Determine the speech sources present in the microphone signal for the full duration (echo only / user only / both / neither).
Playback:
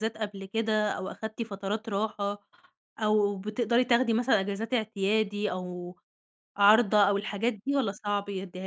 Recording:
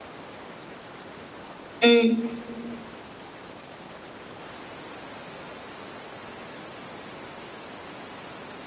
user only